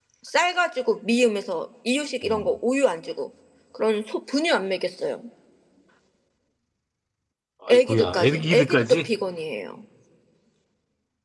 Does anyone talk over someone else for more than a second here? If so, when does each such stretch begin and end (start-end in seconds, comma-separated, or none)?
7.7-9.1